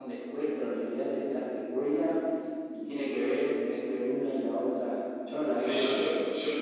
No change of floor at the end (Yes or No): No